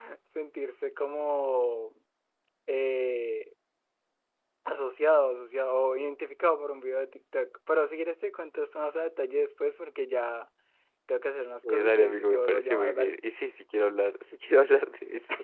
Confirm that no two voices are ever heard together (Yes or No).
No